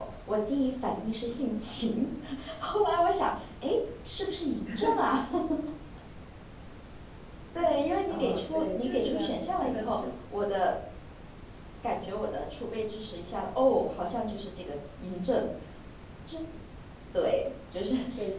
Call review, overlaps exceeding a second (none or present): present